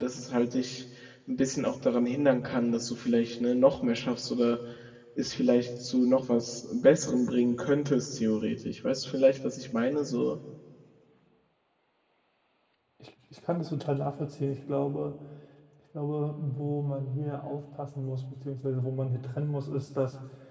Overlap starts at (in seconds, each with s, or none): none